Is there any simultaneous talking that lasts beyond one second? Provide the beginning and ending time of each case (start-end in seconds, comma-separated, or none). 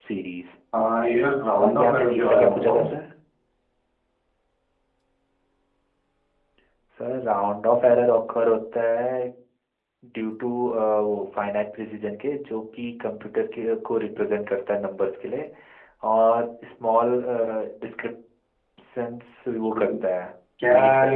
1.6-3.0